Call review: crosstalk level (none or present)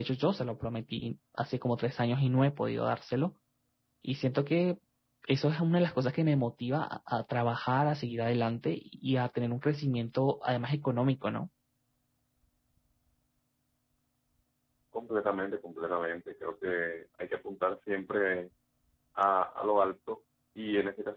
none